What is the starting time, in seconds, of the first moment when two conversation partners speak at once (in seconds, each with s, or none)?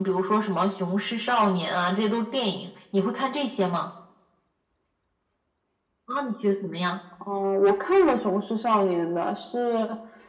none